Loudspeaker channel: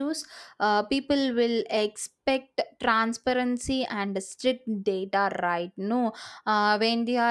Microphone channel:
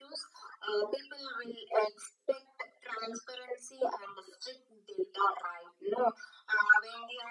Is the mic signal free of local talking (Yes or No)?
Yes